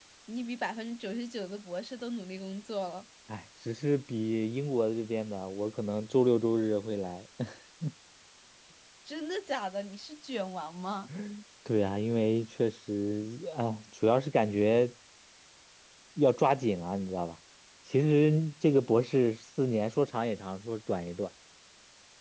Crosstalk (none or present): none